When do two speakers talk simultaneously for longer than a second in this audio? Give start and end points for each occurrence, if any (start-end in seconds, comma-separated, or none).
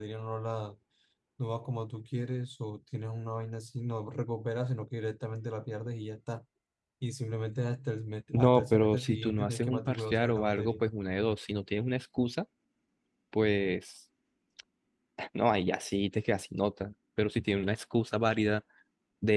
8.3-10.8